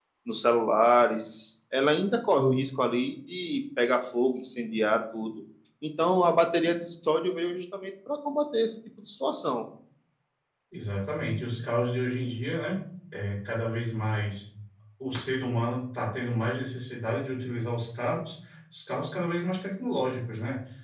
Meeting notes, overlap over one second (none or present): none